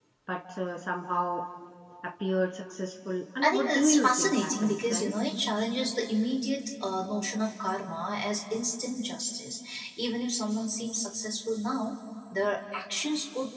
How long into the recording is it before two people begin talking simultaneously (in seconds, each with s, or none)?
3.4 s